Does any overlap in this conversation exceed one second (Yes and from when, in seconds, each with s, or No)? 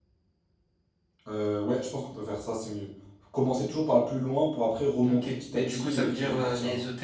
Yes, from 5.0 s